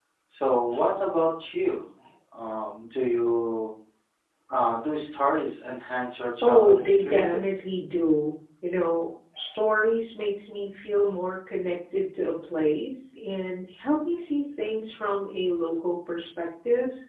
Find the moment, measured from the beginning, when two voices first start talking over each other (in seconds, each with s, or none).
6.3 s